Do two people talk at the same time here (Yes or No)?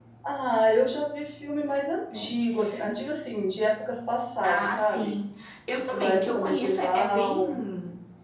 Yes